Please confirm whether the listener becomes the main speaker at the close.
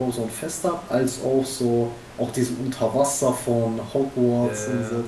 No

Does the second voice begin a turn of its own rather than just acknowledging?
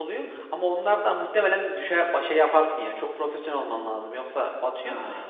Yes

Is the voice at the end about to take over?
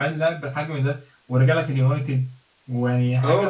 Yes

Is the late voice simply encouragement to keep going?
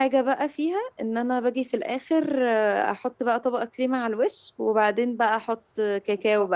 Yes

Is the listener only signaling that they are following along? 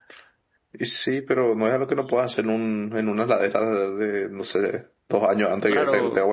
No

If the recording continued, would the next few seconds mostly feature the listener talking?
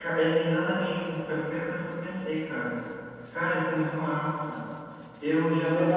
Yes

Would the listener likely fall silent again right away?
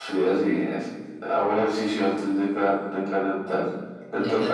No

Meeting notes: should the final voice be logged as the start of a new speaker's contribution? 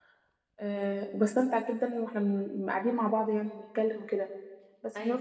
No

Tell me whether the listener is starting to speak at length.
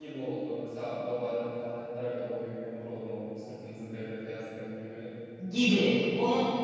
Yes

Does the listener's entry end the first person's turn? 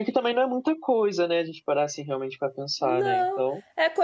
Yes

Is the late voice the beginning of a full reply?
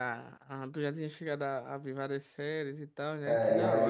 Yes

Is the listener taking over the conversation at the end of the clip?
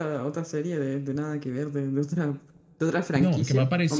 Yes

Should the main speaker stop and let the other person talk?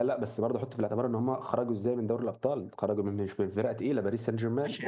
Yes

